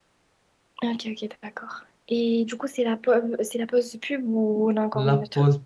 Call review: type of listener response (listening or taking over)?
taking over